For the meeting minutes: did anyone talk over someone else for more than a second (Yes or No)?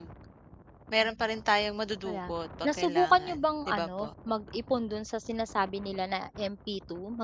Yes